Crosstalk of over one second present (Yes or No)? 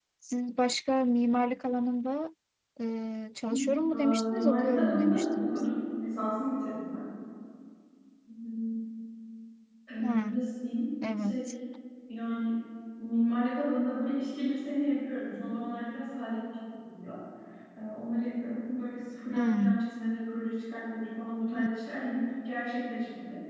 Yes